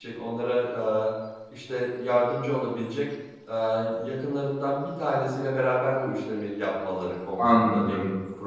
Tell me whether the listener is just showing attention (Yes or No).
No